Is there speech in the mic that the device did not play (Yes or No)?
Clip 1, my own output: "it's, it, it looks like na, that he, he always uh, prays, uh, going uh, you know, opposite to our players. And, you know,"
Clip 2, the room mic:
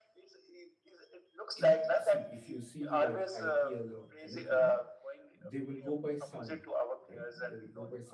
Yes